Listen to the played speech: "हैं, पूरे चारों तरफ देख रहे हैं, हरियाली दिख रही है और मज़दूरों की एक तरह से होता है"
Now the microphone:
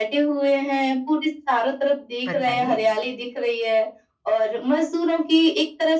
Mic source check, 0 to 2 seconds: echo only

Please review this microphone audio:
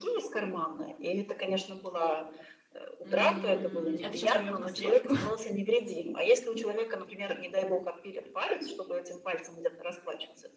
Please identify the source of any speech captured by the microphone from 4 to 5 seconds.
both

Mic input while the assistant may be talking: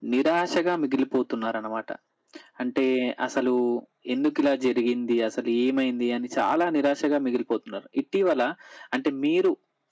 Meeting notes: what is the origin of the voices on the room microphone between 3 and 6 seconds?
echo only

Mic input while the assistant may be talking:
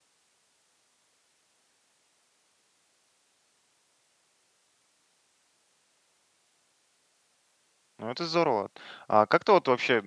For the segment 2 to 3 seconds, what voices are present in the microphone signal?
neither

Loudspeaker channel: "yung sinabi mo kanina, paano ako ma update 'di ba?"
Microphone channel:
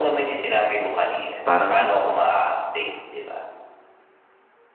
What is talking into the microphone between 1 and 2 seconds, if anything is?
both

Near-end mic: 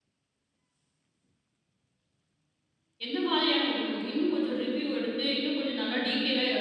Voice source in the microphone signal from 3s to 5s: user only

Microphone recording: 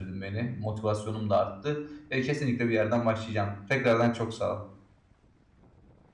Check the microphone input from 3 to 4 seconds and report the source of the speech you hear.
user only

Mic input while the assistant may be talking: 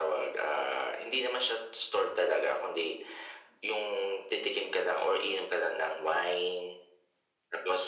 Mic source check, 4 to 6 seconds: echo only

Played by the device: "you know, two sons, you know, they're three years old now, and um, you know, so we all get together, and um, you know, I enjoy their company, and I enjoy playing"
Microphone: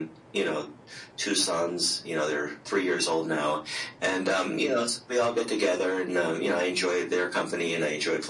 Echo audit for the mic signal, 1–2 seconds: echo only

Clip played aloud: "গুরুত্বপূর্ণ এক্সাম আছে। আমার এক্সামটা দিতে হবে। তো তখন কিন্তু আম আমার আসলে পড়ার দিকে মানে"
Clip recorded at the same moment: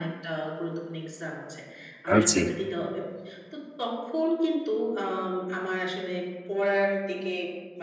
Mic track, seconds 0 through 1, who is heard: echo only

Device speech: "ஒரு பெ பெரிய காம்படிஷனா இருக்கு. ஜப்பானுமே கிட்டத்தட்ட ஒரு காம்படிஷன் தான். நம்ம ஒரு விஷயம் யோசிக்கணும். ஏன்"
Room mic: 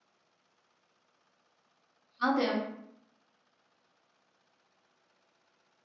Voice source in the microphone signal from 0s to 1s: neither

